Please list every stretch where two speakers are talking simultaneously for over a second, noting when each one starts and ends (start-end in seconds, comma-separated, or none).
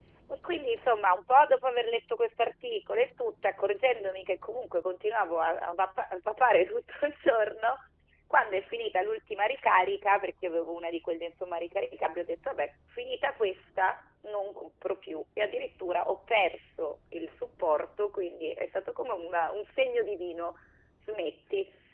none